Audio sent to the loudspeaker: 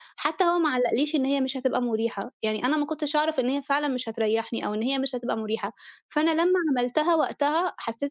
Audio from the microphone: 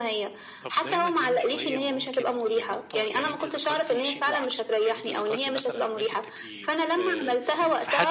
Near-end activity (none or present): present